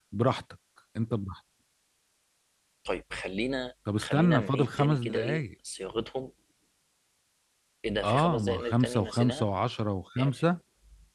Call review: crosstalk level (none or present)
present